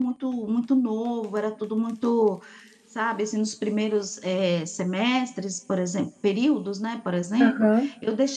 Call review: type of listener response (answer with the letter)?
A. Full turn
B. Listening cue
B